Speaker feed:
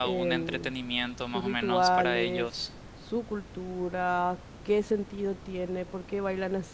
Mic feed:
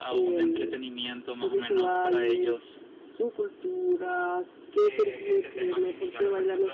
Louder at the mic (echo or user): echo